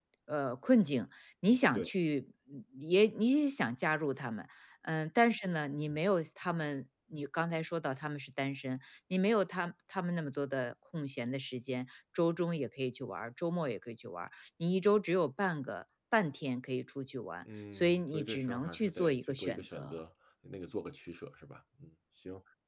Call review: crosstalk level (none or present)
present